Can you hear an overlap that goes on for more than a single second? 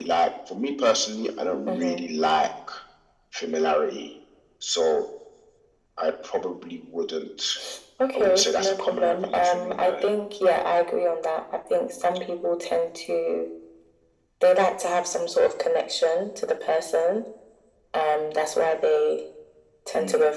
Yes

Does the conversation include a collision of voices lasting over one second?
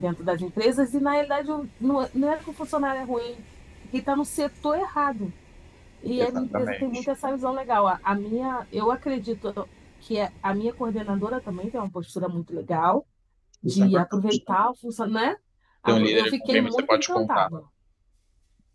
Yes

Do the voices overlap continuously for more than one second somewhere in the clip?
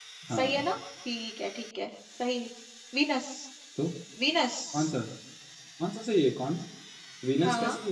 No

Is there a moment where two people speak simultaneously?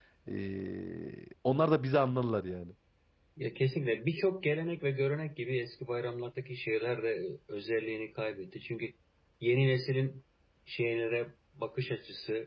No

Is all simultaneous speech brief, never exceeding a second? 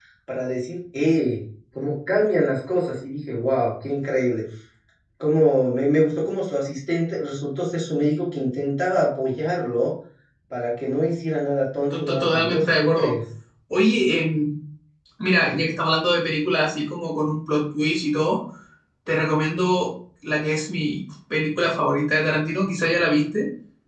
No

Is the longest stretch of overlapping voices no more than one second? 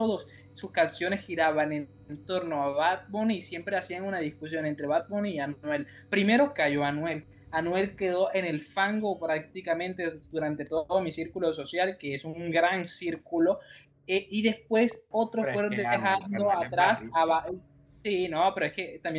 No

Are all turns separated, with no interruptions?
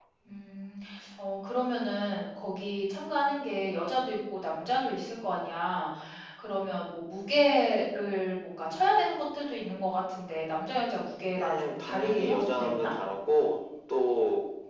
No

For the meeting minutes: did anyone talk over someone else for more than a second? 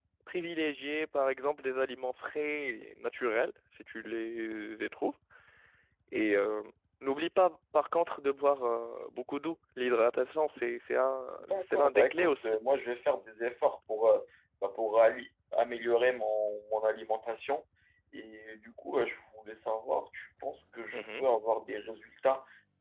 Yes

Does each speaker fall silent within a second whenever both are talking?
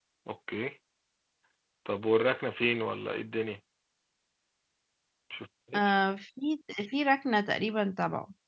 Yes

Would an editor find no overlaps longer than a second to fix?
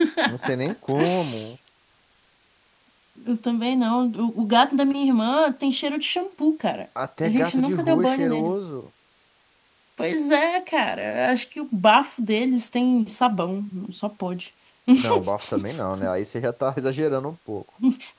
No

